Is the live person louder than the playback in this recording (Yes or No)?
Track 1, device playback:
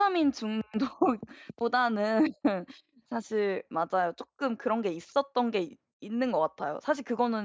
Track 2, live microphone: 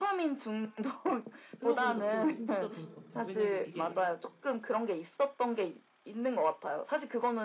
No